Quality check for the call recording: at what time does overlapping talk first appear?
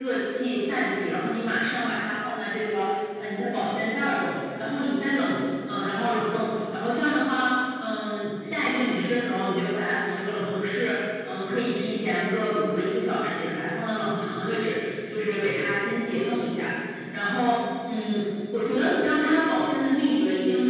none

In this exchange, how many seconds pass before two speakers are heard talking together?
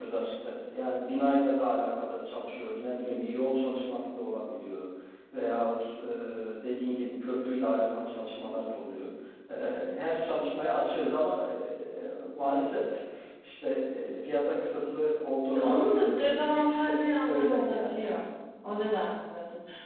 15.5 s

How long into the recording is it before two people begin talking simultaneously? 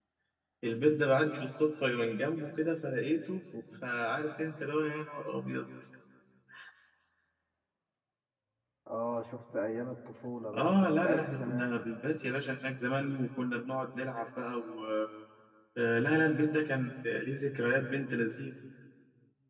10.5 s

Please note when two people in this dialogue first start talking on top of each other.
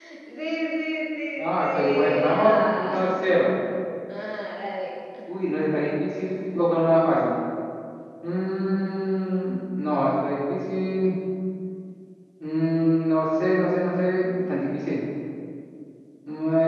1.4 s

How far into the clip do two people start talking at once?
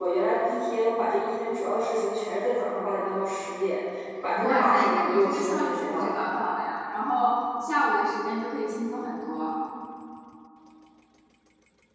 4.4 s

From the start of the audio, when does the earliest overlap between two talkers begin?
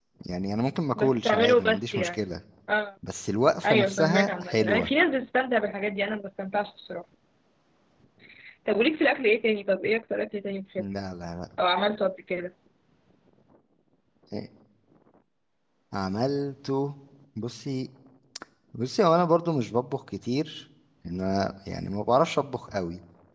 1.0 s

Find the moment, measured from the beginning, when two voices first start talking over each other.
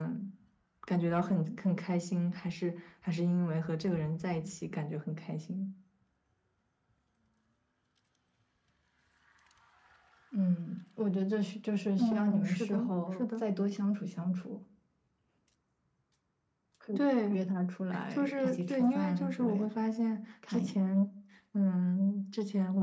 12.0 s

